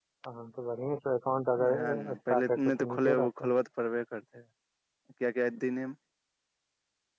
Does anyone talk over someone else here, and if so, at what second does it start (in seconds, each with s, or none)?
1.6 s